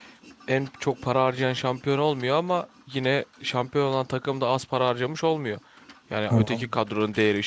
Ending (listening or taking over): listening